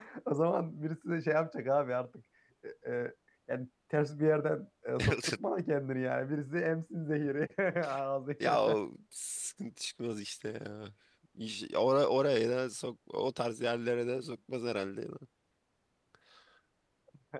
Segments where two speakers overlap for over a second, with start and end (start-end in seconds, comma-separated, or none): none